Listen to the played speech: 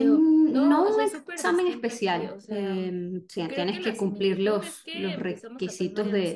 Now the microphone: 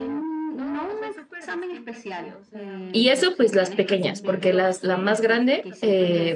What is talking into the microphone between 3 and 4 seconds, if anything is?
both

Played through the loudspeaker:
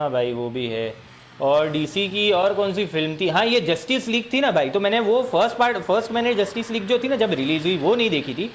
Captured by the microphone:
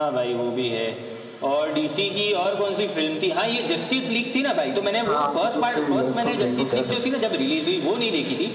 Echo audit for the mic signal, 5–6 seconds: both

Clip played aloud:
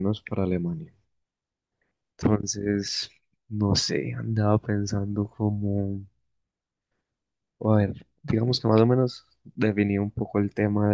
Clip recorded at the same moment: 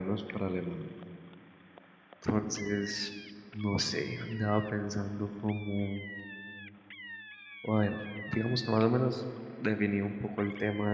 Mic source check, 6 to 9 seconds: echo only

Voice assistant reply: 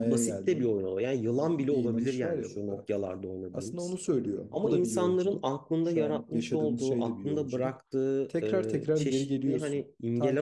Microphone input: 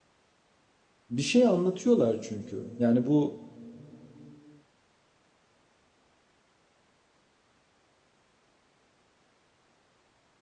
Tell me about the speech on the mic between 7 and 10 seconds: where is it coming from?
neither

